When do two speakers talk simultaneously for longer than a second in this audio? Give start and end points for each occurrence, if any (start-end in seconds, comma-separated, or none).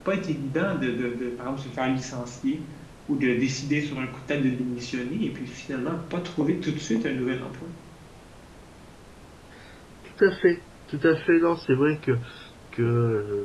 none